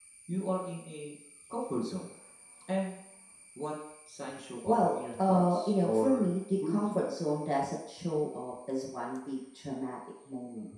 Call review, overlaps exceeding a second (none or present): present